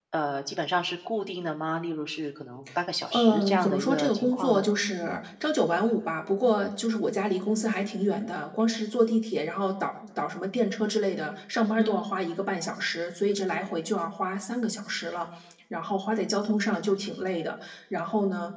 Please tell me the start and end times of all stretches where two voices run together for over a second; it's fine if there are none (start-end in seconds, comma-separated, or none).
3.1-4.6